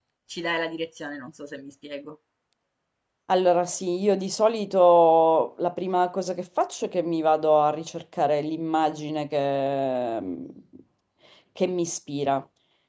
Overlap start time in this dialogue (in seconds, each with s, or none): none